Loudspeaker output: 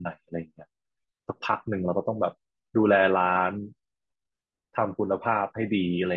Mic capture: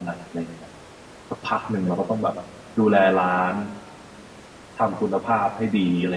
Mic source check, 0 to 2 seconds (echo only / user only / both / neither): echo only